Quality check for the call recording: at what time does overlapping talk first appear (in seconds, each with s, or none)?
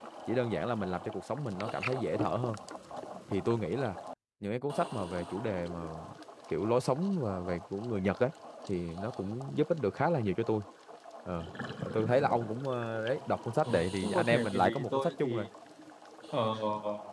13.7 s